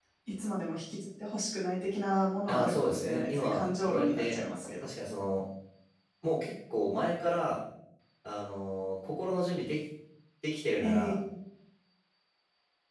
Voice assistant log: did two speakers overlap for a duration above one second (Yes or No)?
Yes